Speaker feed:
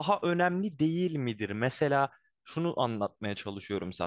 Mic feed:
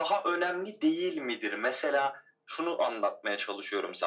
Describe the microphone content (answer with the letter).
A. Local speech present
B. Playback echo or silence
B